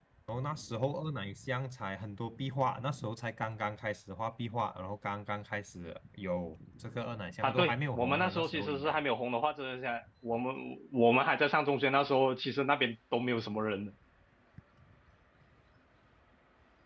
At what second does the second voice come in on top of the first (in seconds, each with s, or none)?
7.4 s